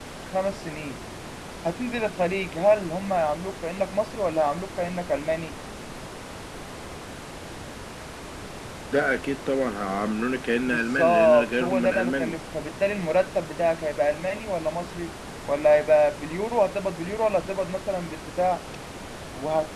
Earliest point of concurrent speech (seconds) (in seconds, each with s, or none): 10.7 s